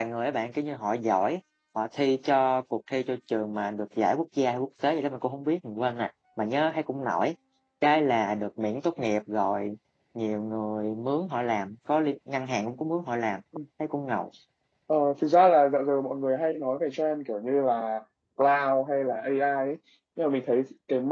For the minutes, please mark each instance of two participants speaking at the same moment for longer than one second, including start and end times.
none

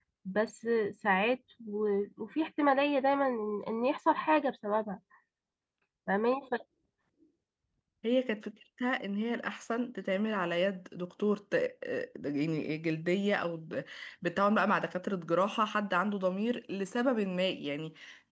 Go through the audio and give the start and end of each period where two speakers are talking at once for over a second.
none

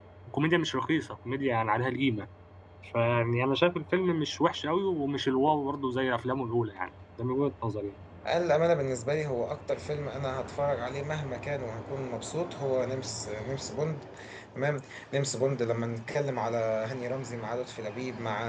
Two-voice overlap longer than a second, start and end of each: none

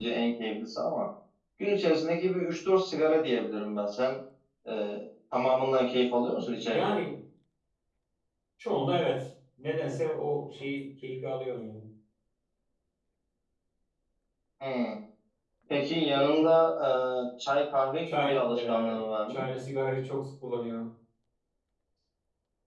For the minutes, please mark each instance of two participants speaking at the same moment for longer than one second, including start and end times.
18.1-19.4

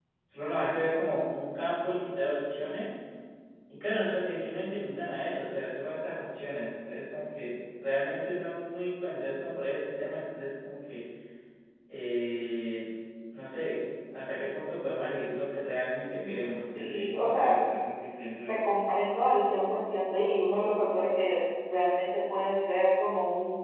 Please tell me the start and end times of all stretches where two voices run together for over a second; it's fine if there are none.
16.2-17.6

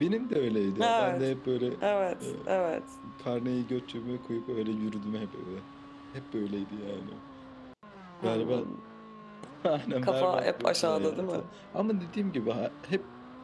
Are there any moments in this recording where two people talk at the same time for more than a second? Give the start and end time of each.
10.0-11.4

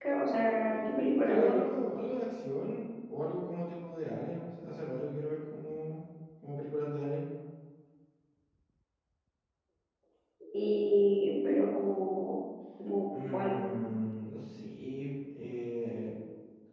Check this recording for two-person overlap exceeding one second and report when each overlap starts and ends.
none

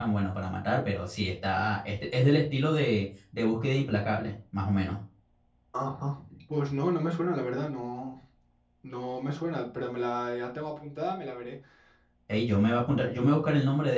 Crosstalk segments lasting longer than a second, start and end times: none

